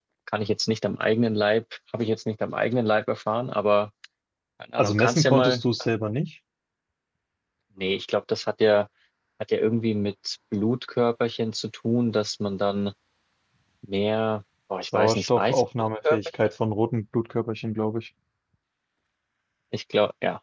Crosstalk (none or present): present